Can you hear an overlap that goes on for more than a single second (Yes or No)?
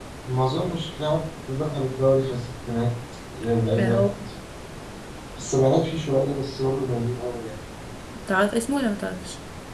No